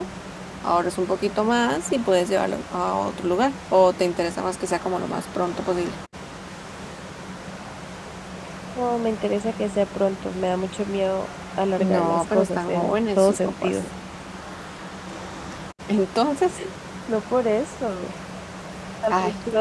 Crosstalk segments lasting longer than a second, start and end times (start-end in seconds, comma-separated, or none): 11.8-13.8